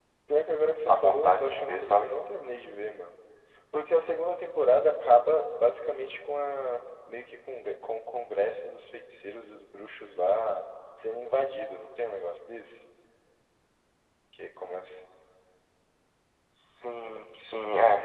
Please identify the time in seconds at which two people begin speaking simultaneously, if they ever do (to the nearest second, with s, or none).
1 s